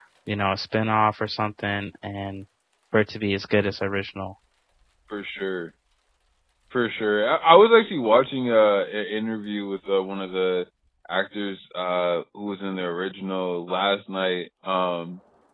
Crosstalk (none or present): none